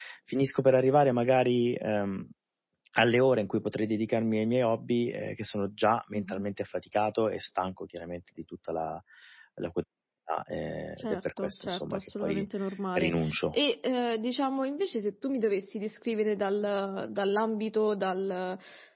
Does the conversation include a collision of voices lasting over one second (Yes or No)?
Yes